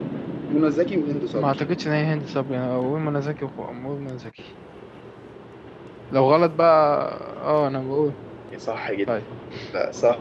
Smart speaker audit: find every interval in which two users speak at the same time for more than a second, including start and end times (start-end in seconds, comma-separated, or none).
none